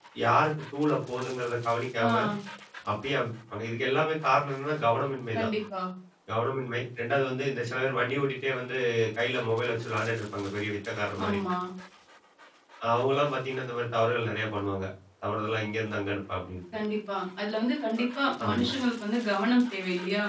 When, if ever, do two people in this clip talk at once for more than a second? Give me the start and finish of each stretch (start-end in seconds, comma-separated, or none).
none